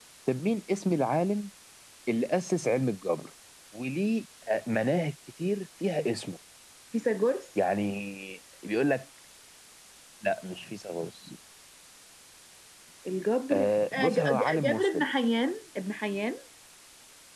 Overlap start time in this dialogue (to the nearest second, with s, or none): 14 s